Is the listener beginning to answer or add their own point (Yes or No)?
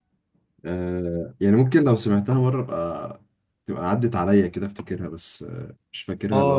Yes